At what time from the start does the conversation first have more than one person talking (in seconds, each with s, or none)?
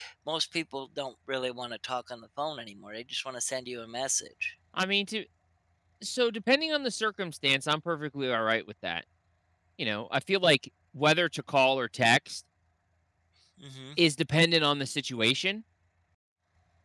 none